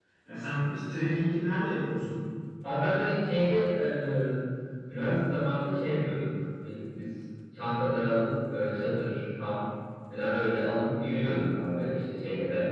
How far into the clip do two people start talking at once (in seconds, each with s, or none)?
none